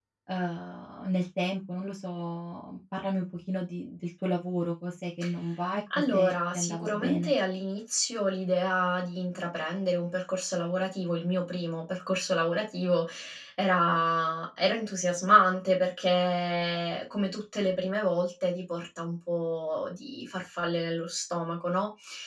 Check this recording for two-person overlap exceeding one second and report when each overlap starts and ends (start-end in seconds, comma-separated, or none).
6.1-7.3